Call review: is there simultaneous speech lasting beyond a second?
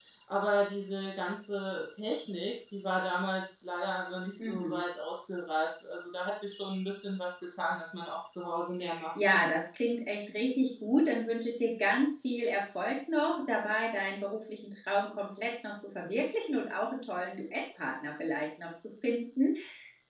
No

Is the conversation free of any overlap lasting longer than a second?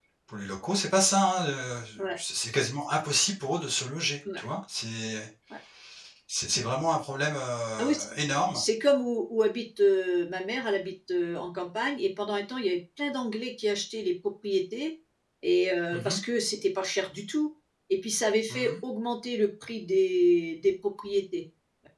Yes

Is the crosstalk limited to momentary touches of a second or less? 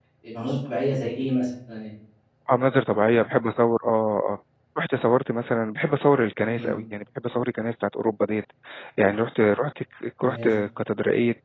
Yes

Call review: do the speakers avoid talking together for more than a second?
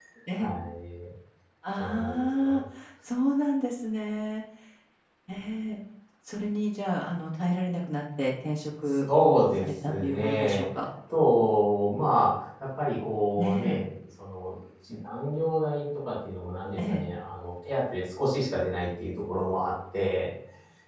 No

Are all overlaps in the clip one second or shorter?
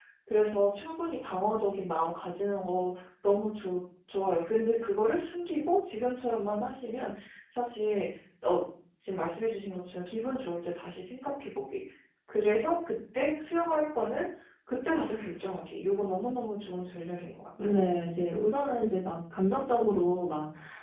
Yes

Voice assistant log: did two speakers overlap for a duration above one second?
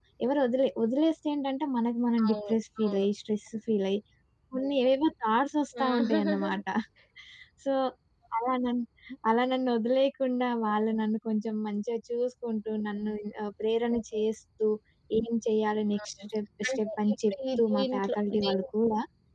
Yes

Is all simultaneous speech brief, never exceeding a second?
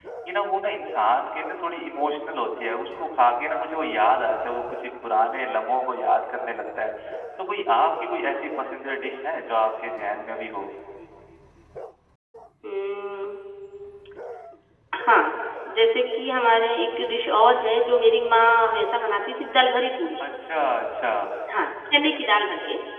Yes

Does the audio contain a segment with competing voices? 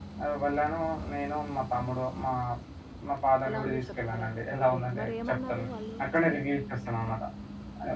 Yes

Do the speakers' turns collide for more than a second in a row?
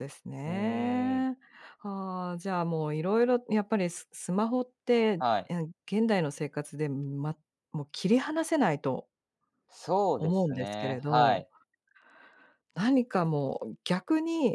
Yes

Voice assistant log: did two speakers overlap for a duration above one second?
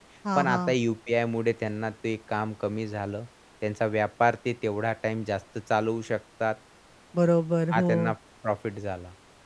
No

